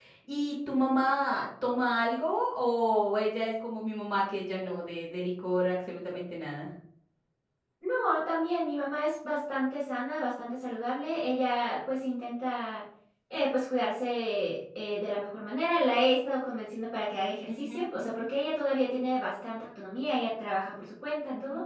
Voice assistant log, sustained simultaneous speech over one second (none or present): none